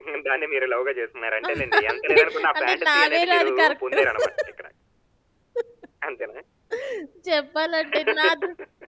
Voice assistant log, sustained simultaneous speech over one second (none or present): present